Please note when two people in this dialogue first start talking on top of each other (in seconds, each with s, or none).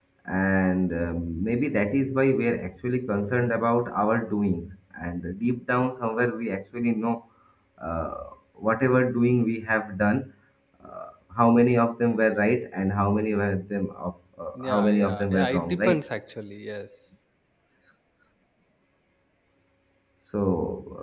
14.6 s